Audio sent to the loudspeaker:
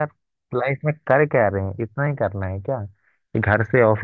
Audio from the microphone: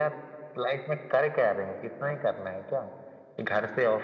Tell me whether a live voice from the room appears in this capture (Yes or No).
No